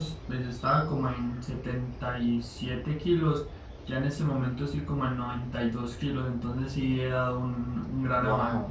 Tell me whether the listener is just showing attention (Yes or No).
No